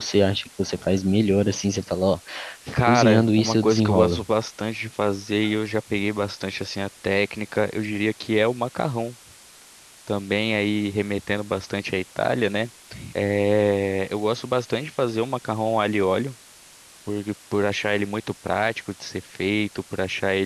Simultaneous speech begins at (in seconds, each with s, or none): 2.8 s